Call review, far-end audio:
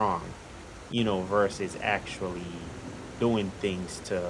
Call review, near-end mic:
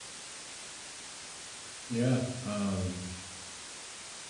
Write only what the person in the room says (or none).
Yeah, um,